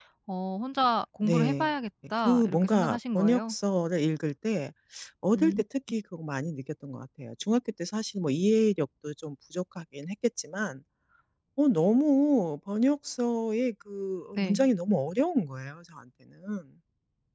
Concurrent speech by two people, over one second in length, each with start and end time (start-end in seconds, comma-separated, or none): 2.2-3.6